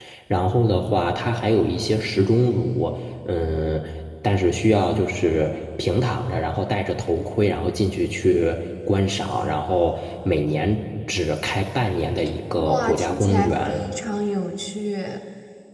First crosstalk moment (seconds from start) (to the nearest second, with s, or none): 13 s